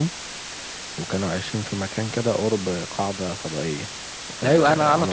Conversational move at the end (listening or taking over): taking over